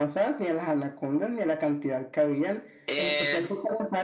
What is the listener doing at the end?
listening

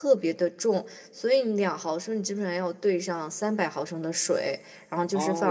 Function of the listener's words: taking over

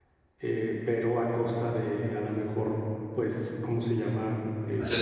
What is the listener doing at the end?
taking over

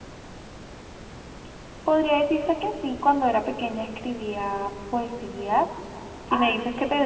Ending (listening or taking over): listening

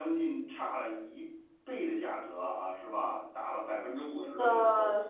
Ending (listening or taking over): taking over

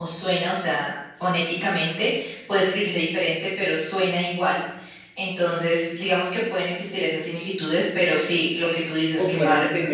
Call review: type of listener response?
taking over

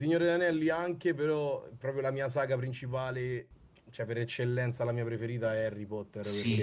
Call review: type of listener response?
taking over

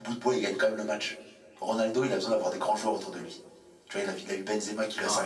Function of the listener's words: taking over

